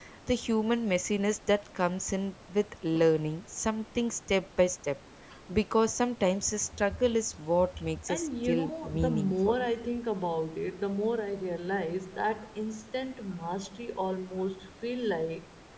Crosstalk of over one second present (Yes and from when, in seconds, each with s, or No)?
Yes, from 8.1 s